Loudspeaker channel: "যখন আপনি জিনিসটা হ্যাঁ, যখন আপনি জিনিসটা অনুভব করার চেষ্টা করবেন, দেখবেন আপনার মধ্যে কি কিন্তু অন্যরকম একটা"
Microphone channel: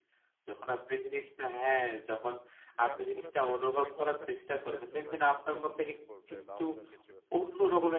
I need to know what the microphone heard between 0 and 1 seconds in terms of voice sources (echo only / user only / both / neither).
echo only